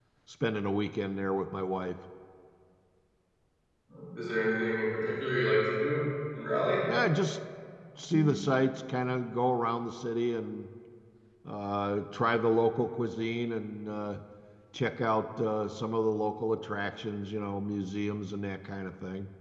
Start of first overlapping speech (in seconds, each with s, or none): none